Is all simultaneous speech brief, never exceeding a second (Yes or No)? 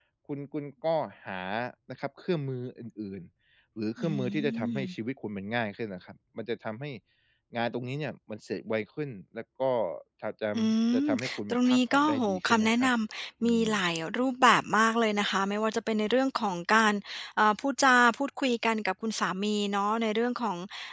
No